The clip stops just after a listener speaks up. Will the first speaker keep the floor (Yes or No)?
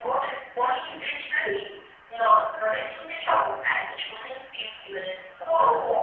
No